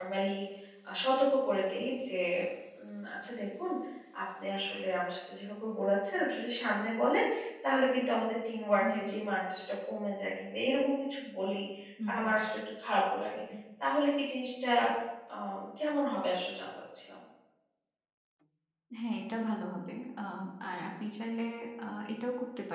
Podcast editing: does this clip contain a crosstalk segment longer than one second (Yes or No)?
No